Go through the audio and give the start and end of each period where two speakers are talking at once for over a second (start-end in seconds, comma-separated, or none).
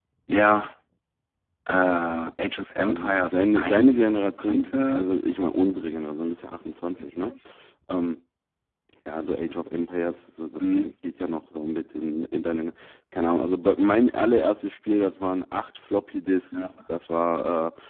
2.9-5.1